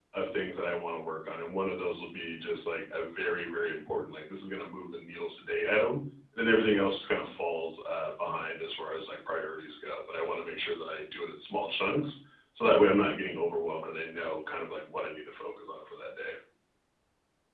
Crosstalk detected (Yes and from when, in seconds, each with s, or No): No